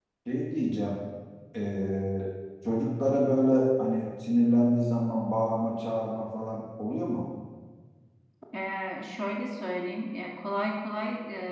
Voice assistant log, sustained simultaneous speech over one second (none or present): none